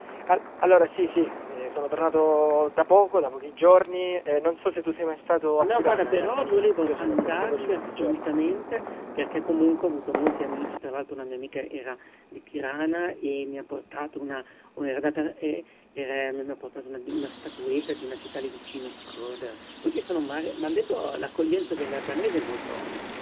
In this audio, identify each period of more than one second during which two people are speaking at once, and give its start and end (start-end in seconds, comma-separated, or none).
5.6-8.1